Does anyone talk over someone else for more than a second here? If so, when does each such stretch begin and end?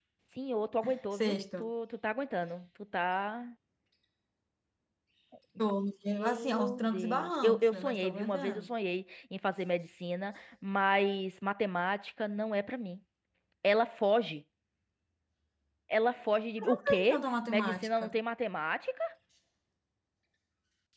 6.1-8.7, 16.7-18.2

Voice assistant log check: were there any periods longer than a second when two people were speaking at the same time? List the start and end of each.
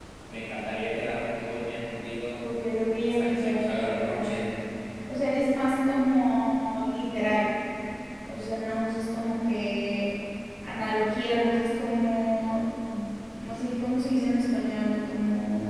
3.0-4.5

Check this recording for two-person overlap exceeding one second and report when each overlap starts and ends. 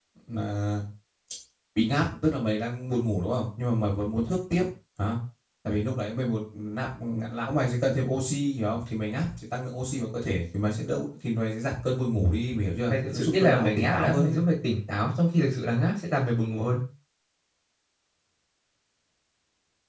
12.9-14.4

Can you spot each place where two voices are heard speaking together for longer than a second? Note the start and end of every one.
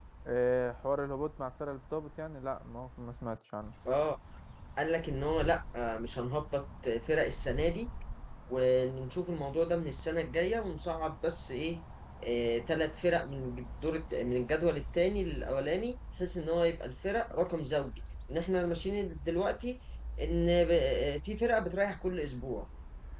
none

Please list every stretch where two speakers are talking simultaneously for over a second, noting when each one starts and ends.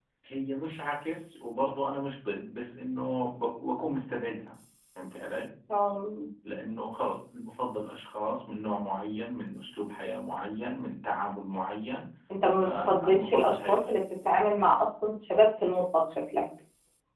12.6-13.8

